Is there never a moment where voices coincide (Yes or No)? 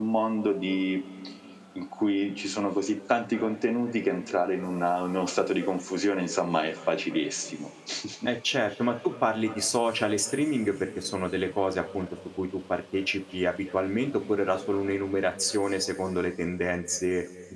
Yes